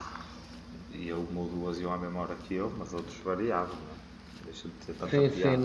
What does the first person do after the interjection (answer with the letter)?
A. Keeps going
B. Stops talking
B